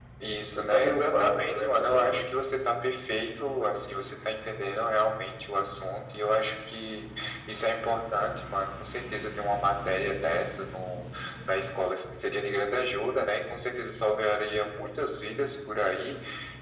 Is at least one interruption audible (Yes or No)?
Yes